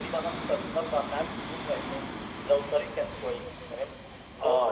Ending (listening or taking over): taking over